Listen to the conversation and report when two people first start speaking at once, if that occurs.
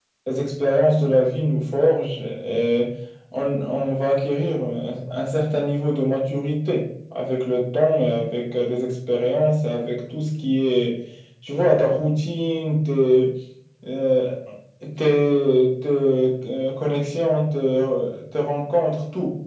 none

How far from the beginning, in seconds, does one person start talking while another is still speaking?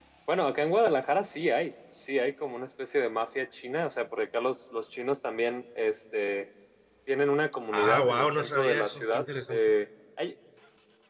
7.7 s

